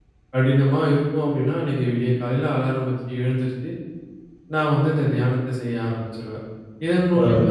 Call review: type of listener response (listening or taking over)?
listening